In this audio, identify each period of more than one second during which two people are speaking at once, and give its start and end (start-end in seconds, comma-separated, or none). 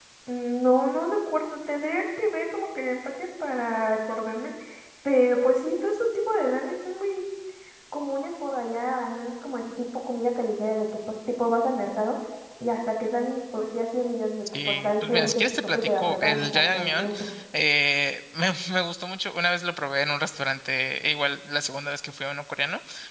14.6-17.1